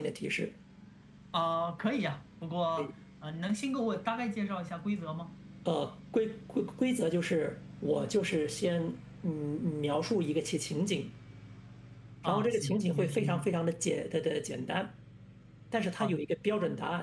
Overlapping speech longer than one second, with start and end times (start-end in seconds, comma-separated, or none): 12.2-13.5